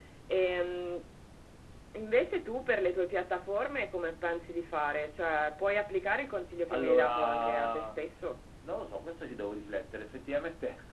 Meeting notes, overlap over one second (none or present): present